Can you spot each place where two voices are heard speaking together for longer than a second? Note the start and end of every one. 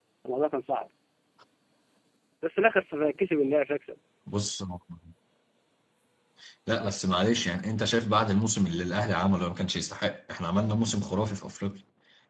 none

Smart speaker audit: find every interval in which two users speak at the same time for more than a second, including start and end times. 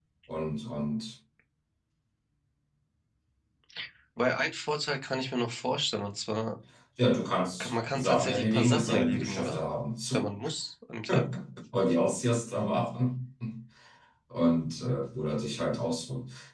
7.6-9.6

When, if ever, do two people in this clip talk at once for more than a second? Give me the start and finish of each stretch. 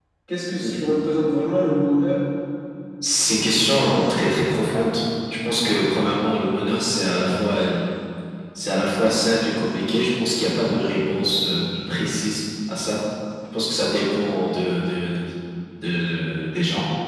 none

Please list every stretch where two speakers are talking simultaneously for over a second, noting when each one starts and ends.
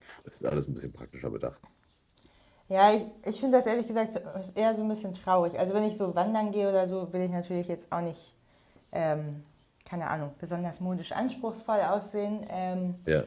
none

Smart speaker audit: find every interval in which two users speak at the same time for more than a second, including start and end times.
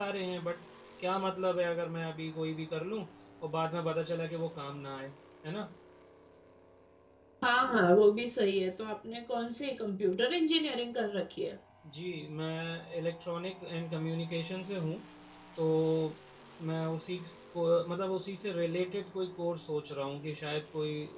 none

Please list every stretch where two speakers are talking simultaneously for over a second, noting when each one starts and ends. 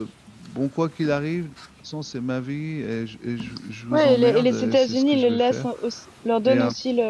3.9-5.7

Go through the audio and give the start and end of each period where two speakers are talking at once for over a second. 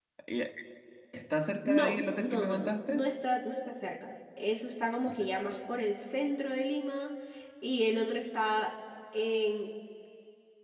1.6-3.0

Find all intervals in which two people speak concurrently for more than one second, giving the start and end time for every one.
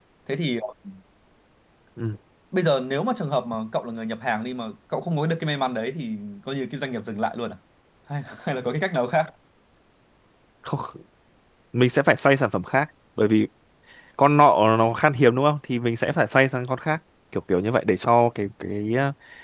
none

